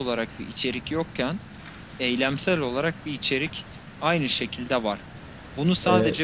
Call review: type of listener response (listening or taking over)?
listening